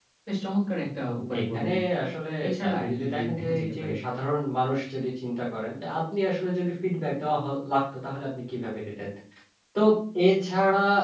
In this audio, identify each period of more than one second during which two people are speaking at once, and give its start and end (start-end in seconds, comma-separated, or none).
2.7-3.9